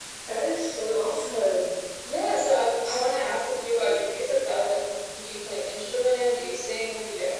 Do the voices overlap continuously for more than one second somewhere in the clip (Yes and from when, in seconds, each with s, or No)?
No